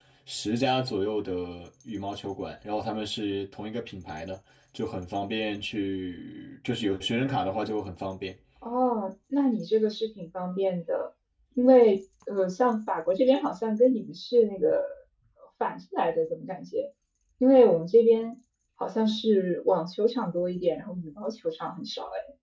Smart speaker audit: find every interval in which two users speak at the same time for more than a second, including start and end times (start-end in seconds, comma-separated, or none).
none